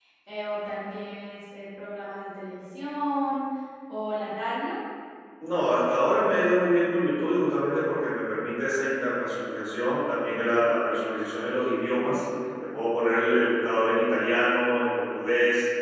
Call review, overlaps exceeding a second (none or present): none